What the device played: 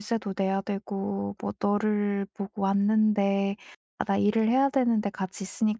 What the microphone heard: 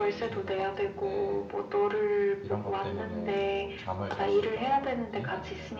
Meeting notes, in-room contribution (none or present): present